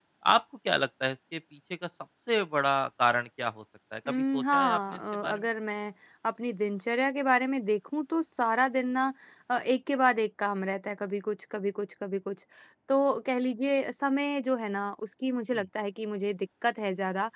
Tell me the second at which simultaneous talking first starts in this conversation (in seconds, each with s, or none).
4.0 s